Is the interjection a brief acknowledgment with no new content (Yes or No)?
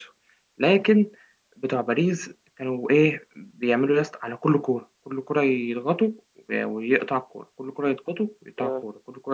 Yes